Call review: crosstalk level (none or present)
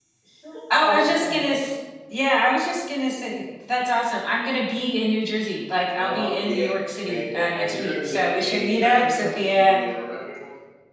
present